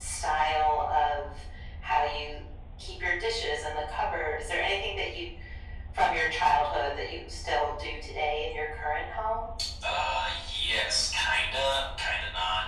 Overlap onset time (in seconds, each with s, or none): none